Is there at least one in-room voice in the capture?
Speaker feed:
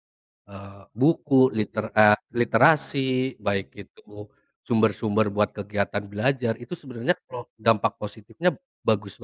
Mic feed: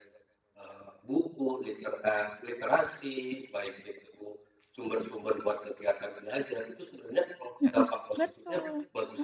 Yes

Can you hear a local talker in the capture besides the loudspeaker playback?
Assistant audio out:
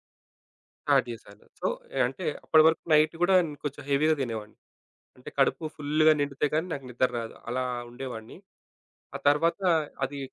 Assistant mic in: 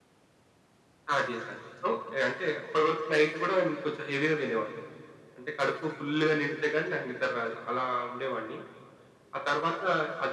No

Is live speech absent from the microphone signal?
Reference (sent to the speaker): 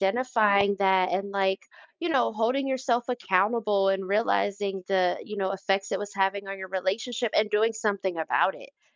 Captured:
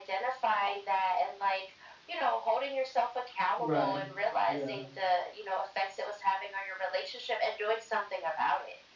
No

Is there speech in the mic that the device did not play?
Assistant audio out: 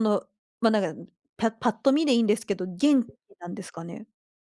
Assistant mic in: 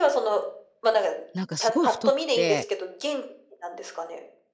Yes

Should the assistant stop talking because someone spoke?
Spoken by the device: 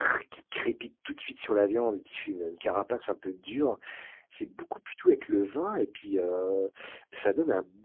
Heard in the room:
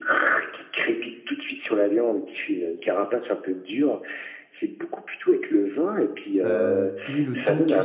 Yes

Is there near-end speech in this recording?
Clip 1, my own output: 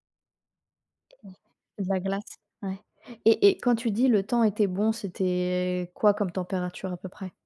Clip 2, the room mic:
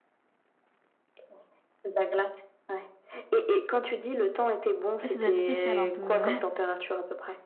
Yes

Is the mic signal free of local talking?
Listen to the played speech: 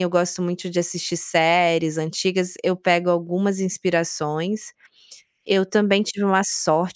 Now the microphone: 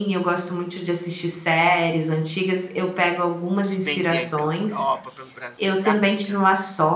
No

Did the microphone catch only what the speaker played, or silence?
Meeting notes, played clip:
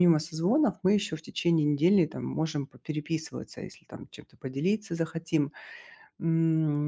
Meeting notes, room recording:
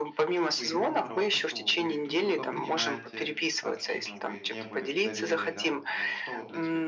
No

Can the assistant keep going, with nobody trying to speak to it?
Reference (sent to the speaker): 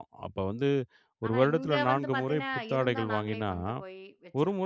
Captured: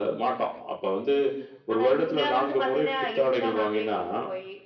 Yes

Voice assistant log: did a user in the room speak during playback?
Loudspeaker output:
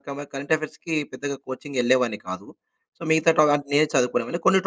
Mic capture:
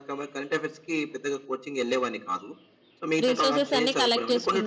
Yes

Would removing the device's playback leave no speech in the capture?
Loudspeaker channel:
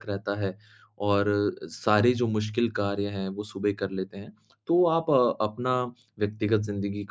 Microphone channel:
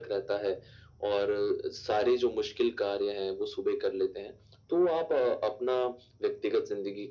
Yes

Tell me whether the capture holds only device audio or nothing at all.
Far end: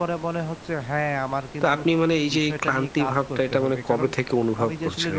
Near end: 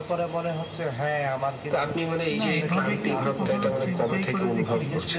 No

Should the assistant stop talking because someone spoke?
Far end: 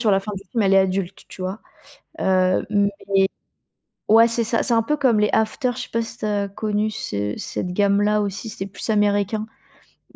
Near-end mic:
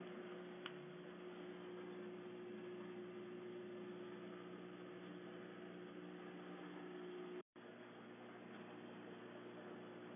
No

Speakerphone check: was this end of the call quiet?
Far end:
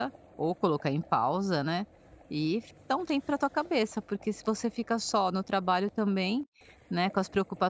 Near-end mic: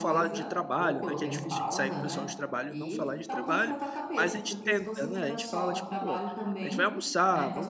No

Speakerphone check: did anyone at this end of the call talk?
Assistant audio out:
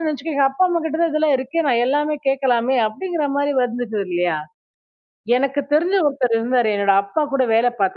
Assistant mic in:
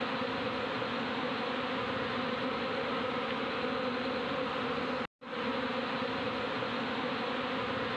No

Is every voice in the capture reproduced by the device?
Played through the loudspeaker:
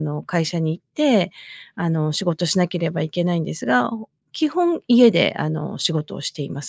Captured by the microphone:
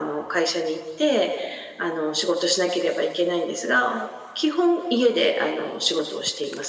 Yes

